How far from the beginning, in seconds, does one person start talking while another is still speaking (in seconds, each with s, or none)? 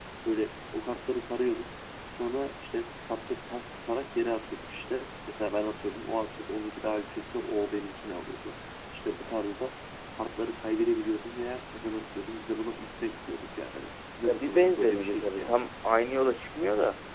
14.2 s